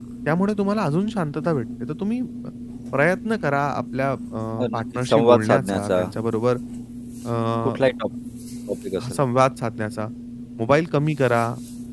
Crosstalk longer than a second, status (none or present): present